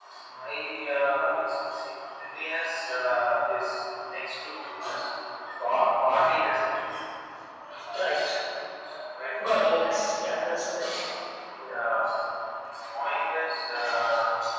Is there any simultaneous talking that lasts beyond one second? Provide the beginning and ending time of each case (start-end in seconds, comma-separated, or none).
9.5-10.7